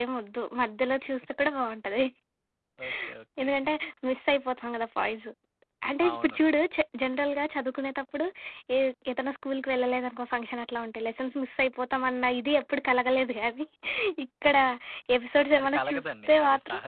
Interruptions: present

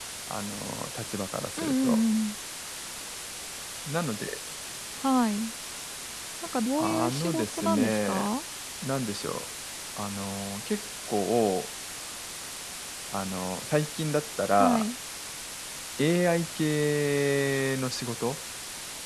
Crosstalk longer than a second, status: present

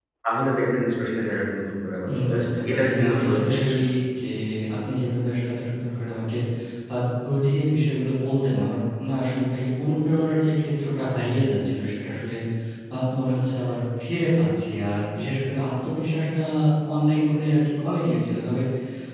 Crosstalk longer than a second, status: present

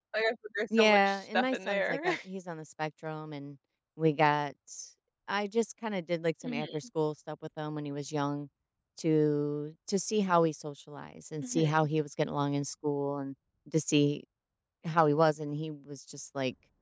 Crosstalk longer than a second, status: present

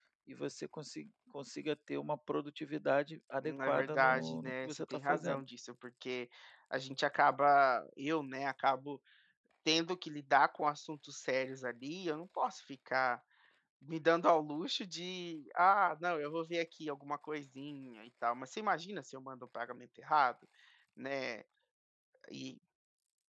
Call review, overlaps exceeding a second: present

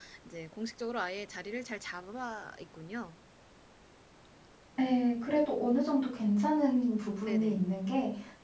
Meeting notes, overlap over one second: none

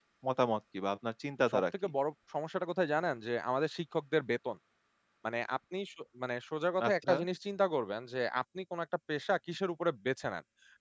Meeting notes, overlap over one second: none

